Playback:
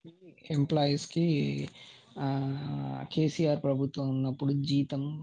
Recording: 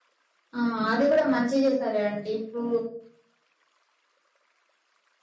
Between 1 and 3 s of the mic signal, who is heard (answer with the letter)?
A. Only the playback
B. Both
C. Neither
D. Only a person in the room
D